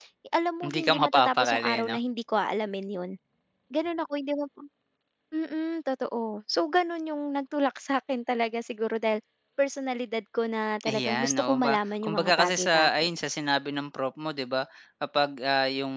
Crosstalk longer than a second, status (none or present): present